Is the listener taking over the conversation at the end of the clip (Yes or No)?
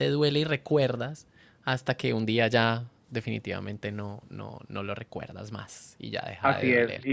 Yes